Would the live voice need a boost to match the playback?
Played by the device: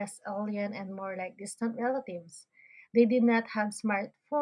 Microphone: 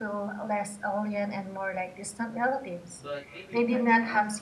Yes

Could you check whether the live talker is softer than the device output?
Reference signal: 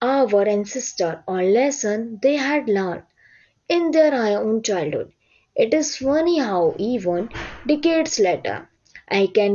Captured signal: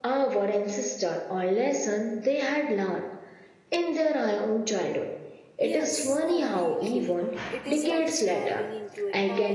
Yes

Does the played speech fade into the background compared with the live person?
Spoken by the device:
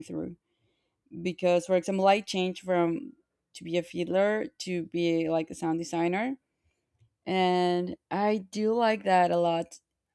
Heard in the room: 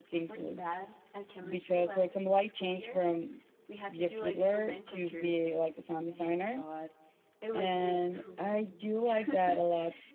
No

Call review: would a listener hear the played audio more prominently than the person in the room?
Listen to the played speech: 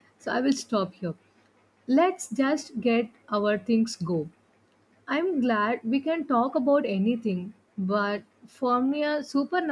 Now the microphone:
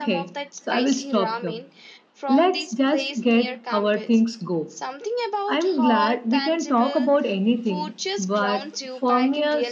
Yes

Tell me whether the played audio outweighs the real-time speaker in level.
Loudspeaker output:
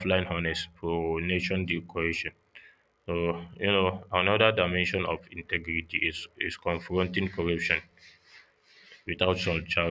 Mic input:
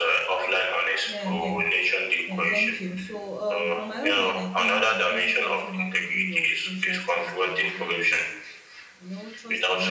Yes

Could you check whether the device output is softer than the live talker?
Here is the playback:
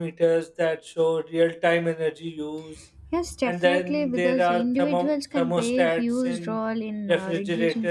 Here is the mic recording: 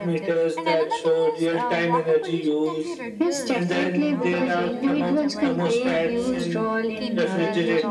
No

